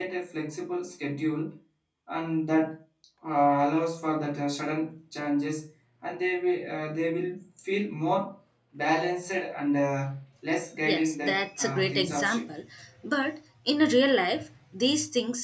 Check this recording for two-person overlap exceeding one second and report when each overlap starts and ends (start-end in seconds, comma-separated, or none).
10.8-12.4